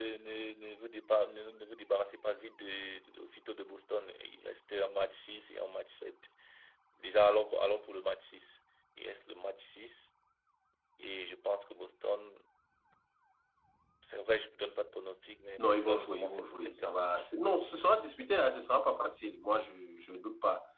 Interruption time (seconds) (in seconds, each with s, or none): 15.6 s